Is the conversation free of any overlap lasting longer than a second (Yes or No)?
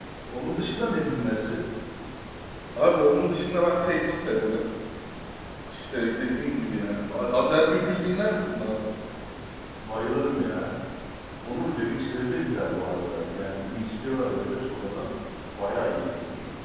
Yes